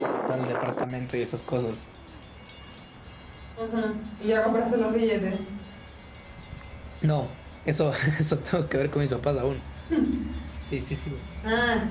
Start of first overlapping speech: none

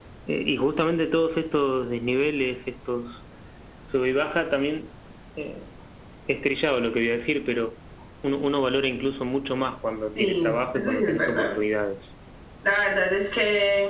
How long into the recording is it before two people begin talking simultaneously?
10.1 s

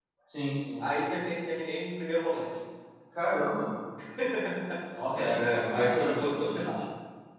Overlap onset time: 5.4 s

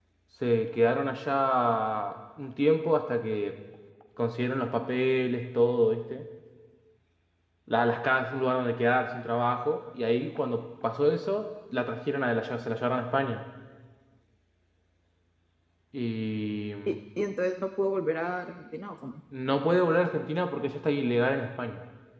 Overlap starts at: none

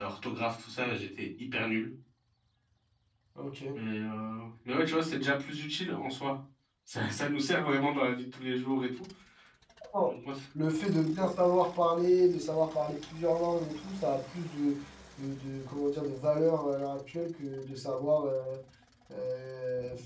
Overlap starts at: none

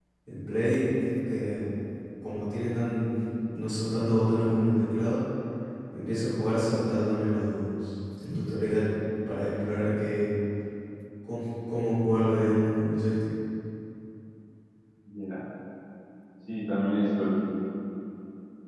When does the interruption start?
none

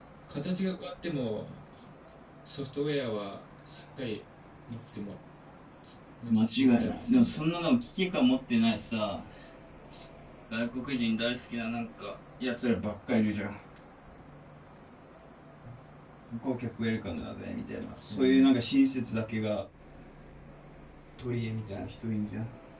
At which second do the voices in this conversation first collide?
6.3 s

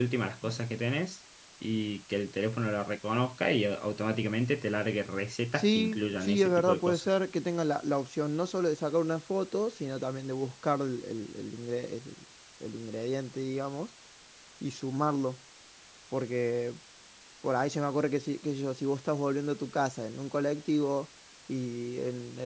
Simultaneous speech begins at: 5.5 s

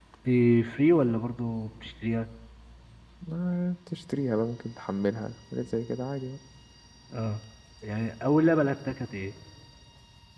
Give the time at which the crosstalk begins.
none

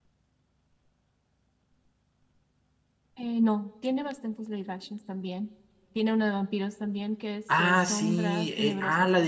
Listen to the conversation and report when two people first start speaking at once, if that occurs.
7.5 s

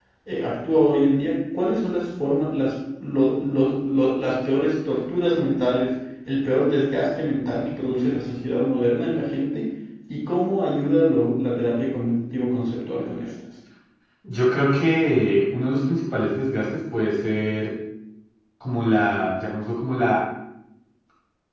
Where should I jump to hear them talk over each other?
none

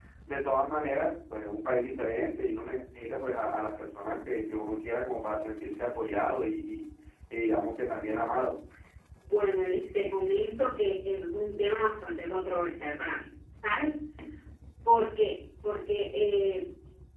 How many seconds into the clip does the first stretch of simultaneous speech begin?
none

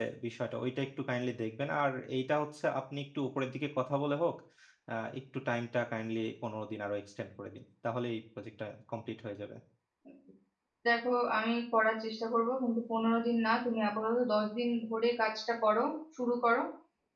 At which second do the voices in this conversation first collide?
none

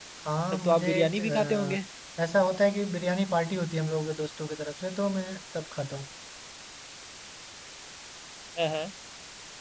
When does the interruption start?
0.5 s

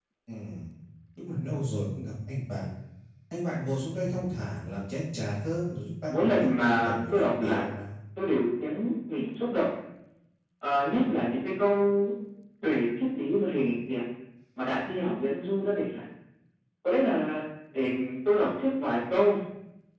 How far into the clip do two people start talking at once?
6.1 s

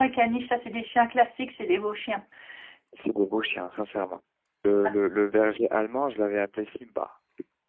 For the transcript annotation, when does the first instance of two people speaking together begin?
none

